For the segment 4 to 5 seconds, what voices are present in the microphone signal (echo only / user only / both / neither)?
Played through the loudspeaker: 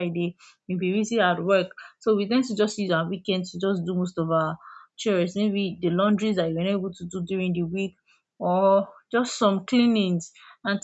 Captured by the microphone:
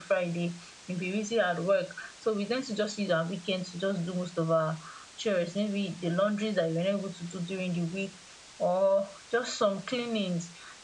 echo only